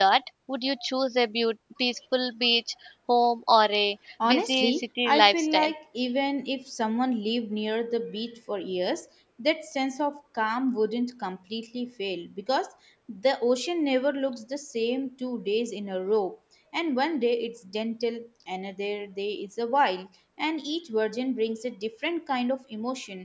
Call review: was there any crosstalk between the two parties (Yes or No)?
Yes